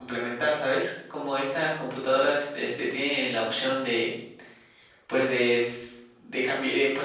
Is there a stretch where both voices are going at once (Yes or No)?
No